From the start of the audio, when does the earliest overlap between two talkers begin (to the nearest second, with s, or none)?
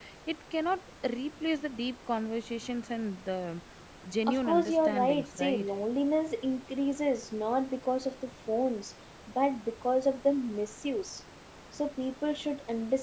4 s